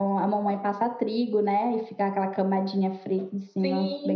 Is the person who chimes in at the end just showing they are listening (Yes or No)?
No